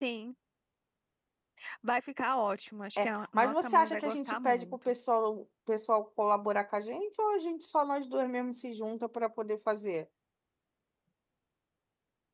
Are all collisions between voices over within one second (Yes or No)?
No